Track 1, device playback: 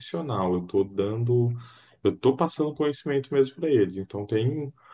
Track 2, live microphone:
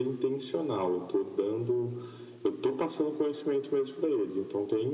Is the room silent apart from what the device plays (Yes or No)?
Yes